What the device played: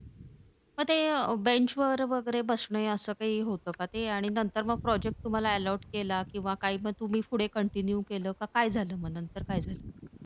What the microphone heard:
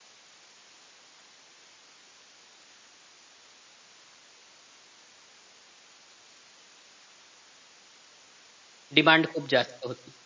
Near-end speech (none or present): present